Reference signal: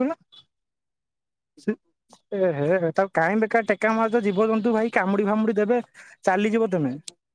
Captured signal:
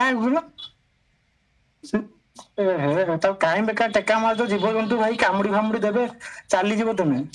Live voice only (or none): none